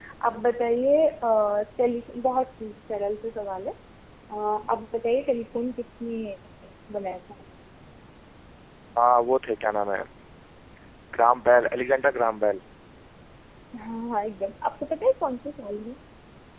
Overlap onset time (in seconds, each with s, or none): none